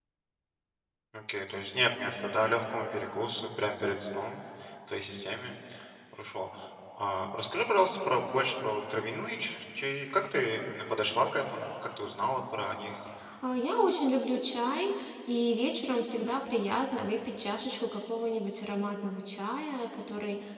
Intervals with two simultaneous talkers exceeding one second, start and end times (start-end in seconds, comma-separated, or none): none